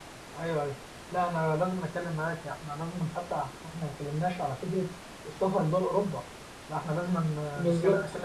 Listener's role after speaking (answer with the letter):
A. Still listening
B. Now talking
A